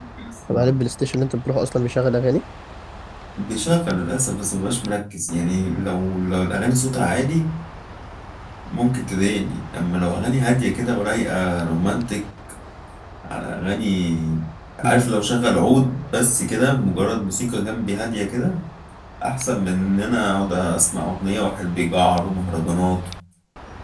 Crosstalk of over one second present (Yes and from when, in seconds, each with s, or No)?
No